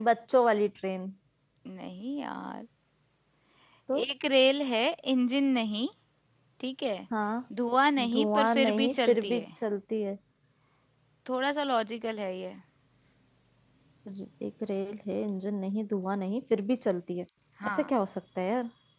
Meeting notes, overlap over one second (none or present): present